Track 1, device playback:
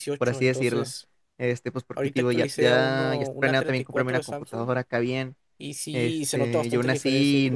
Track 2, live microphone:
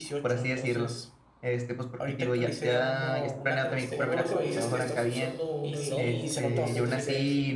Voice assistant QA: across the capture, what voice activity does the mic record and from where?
both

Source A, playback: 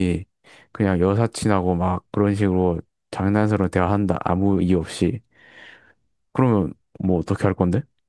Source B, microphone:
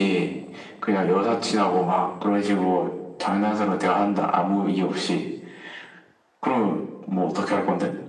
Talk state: echo only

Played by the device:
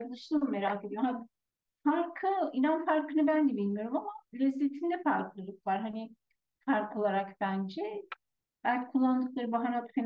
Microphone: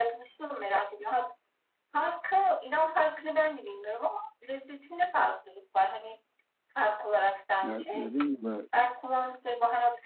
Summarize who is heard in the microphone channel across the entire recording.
both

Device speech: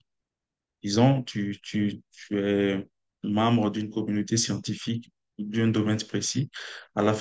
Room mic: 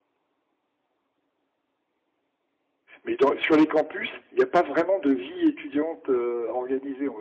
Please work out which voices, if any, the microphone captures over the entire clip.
user only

